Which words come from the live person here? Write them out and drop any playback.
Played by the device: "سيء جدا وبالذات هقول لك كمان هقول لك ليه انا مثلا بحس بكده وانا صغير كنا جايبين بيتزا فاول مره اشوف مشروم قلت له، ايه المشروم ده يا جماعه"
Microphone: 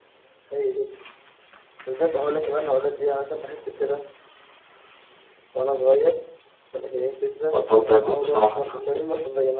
بطلت آكل بصراحة من عنده

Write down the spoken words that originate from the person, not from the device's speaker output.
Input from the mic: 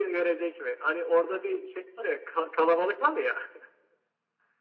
none

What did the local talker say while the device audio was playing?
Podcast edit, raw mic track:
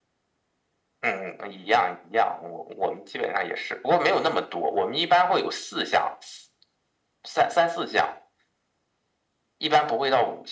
none

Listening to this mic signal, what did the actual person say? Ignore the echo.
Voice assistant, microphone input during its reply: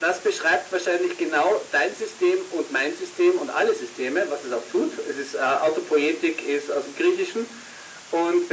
none

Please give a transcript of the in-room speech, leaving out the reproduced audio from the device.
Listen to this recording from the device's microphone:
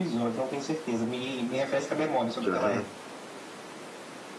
Já.

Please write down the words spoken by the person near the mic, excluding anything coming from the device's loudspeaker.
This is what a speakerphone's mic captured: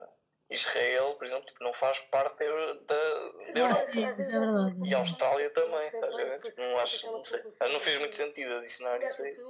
Ah, sim, isso é verdade, é verdade.

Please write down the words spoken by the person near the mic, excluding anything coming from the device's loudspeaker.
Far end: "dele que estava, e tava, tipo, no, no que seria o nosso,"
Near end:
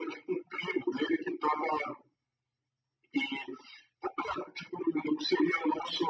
none

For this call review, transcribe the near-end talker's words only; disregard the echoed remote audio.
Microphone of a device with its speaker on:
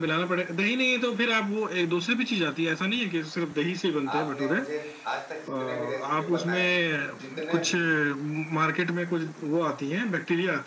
आपने मुझे आज तक जितने भी रेसिपी बताए हैं जितने भी

